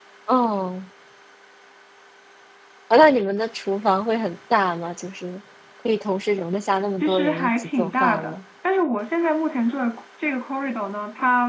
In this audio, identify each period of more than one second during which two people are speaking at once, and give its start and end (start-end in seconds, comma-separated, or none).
7.0-8.4